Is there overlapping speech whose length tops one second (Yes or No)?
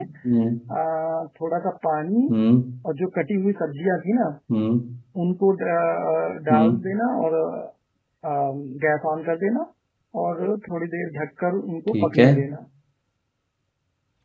No